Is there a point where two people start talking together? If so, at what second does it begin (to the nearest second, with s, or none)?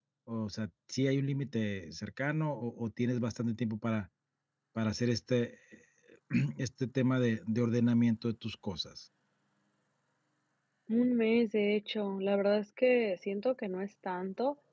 none